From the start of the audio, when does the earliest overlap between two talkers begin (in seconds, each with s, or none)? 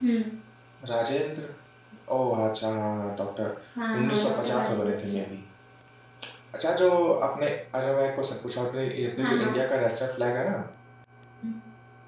4.0 s